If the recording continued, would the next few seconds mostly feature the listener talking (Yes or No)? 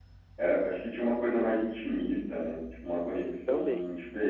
No